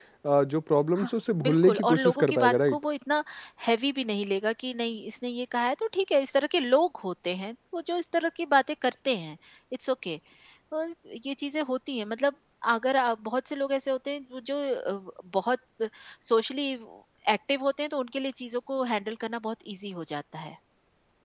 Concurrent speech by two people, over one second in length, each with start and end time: 1.0-2.8

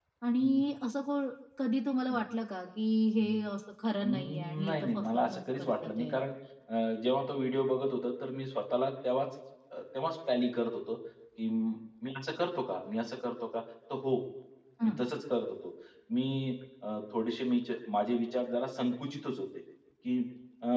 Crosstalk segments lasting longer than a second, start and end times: 4.0-6.2

